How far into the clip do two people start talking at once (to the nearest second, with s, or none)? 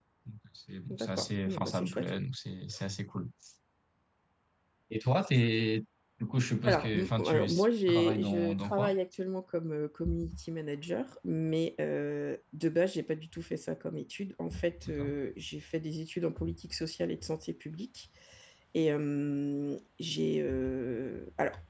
1 s